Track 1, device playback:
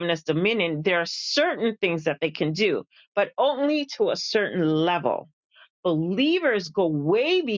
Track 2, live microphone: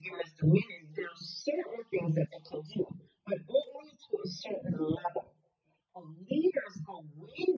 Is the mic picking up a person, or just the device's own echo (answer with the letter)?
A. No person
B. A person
A